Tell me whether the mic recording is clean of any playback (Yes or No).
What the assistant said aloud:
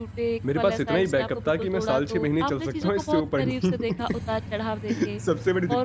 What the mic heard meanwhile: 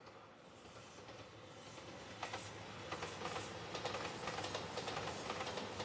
Yes